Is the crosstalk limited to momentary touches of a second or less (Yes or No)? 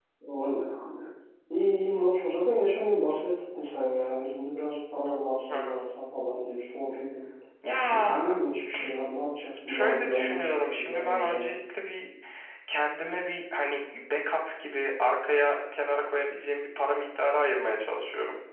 No